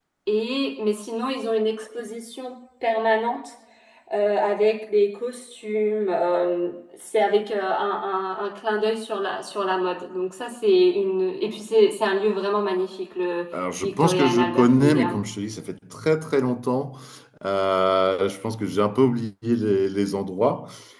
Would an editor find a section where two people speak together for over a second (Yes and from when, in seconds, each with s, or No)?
Yes, from 13.8 s